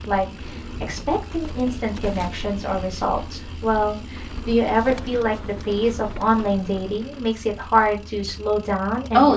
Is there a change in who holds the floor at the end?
Yes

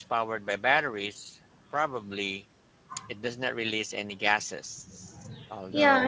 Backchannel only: No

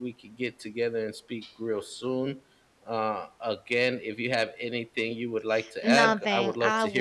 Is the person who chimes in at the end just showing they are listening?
No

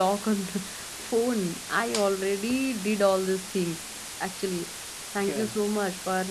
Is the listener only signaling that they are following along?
Yes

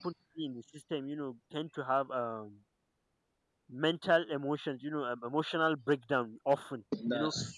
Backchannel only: Yes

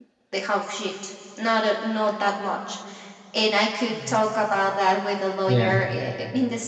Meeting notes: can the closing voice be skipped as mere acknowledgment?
Yes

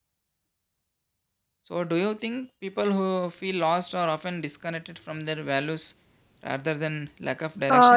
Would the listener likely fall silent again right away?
No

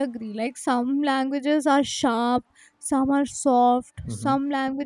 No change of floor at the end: Yes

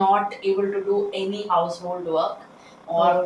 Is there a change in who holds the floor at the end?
No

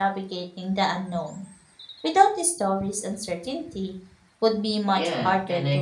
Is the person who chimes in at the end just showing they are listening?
No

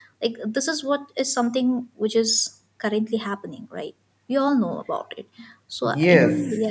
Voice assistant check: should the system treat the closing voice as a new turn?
Yes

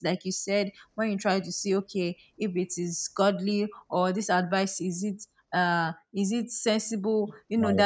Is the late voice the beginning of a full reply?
No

